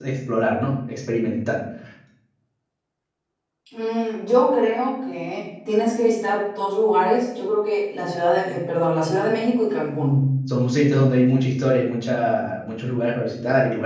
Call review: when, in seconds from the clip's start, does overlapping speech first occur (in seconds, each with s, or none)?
none